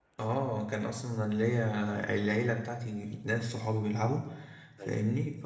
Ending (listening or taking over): listening